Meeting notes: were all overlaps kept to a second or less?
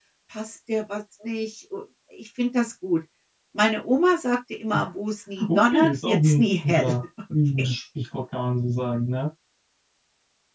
No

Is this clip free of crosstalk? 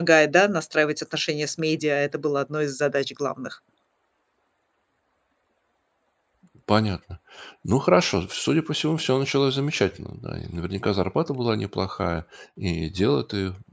Yes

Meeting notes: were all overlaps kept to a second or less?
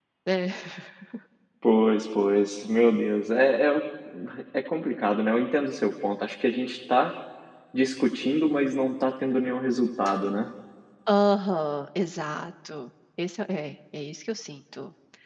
Yes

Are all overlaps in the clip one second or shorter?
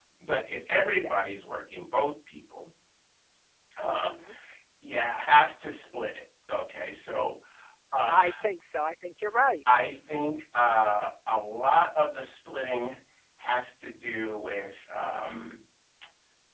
Yes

